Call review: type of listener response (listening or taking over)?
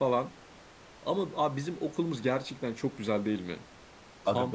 listening